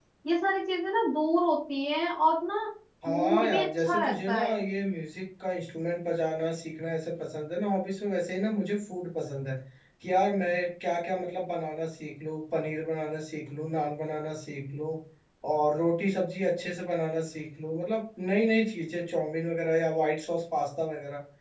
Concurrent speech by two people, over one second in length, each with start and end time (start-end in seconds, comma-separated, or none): 3.1-4.5